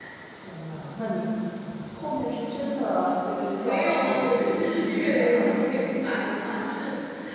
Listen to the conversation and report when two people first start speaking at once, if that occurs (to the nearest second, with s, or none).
4 s